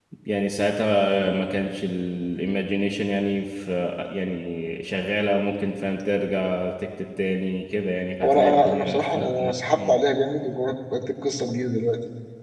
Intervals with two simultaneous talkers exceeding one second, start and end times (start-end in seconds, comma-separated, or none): 8.2-10.0